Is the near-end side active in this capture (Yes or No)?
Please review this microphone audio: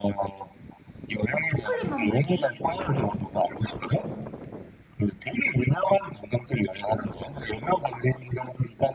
Yes